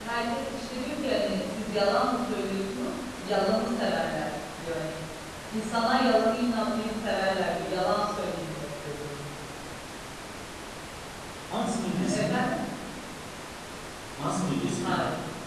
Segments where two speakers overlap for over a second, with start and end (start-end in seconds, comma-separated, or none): none